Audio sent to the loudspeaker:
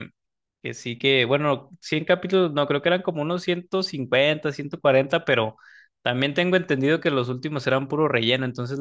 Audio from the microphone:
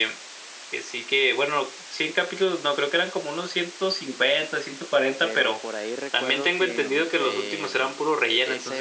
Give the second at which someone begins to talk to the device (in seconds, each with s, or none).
5.2 s